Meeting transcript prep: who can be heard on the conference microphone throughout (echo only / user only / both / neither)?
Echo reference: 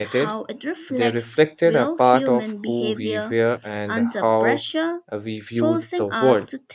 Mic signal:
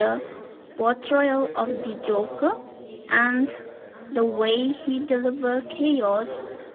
both